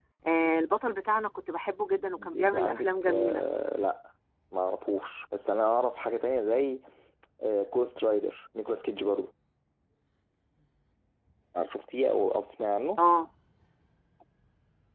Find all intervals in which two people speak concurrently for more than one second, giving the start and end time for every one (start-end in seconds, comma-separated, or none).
2.2-3.4